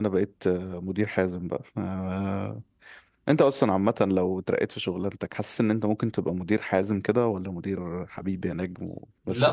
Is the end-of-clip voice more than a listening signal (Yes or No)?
Yes